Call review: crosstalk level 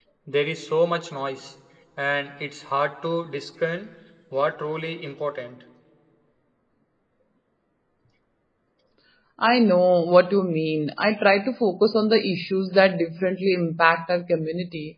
none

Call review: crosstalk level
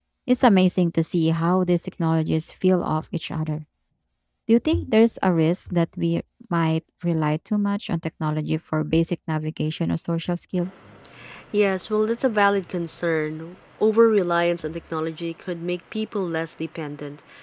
none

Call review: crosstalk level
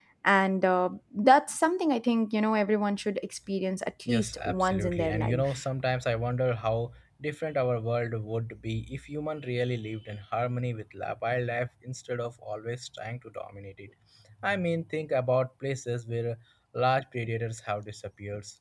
present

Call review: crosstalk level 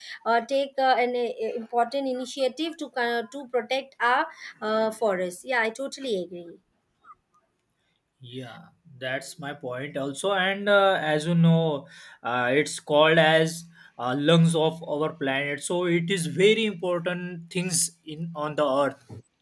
none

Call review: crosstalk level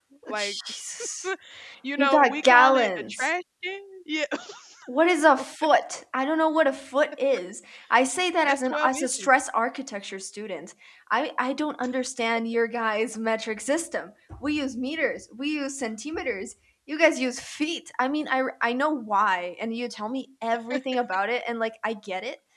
present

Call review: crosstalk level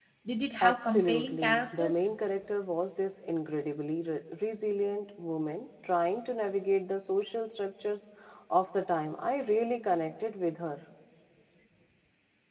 present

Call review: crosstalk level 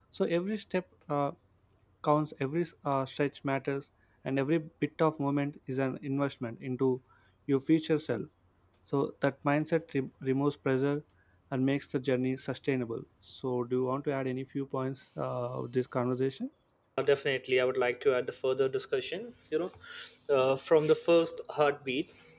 none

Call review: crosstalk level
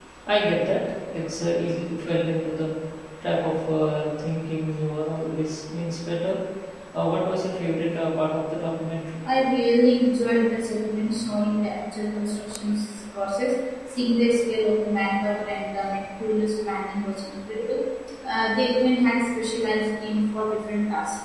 none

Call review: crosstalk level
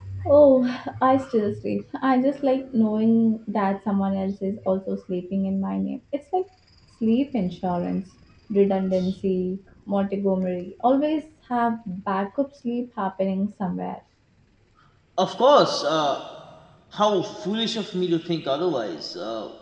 none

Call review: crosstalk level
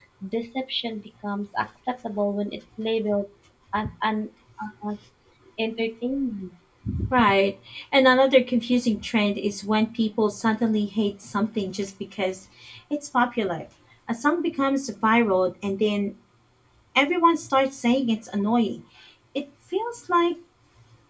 none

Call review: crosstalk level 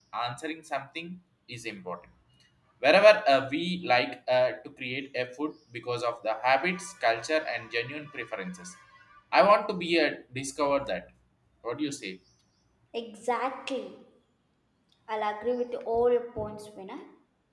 none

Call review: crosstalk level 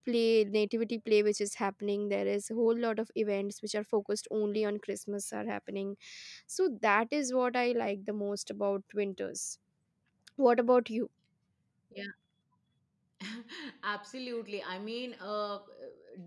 none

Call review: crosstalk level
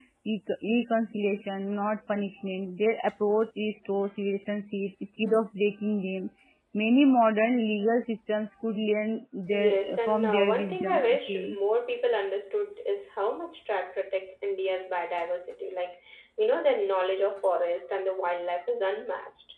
present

